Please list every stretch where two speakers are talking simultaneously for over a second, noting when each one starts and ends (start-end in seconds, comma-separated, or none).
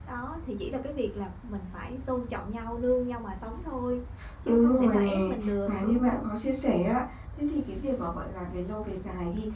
4.5-6.2